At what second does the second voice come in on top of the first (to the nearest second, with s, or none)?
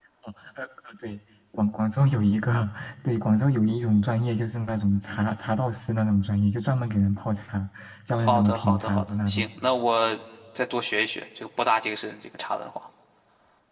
8 s